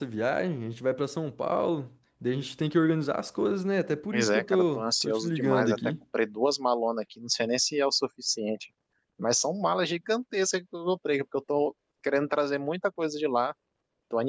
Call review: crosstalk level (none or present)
present